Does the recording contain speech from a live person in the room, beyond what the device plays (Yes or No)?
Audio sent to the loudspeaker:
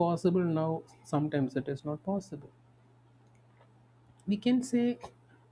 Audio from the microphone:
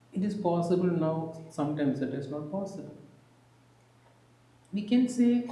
No